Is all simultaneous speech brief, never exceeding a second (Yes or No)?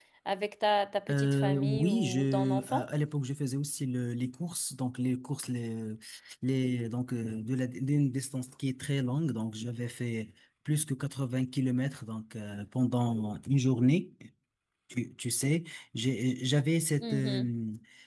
No